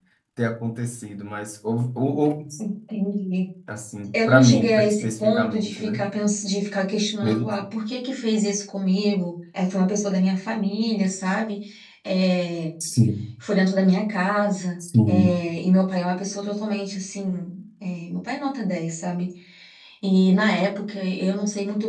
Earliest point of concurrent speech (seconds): 4.1 s

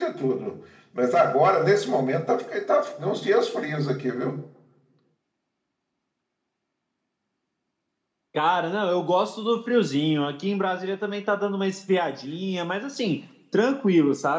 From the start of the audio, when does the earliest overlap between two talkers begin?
none

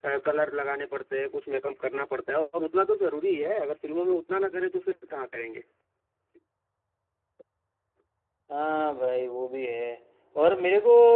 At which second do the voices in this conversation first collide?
none

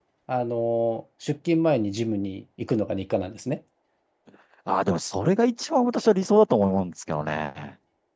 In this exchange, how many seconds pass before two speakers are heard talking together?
none

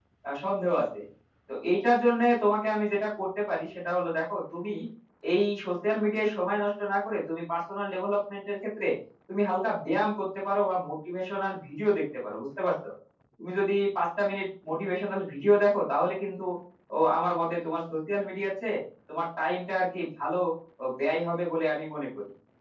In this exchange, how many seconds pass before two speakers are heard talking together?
none

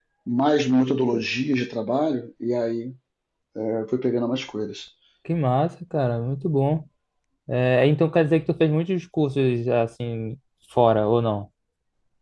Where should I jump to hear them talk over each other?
none

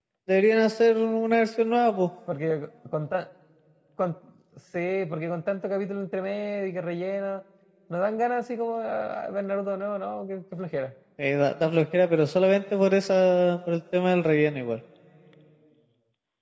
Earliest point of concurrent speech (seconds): none

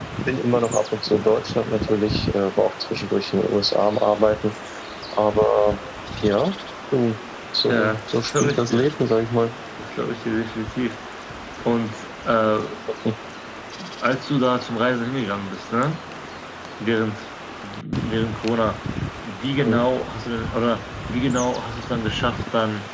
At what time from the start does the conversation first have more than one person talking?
7.7 s

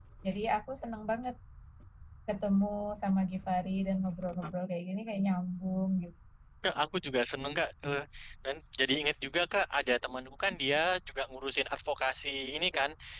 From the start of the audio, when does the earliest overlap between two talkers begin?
none

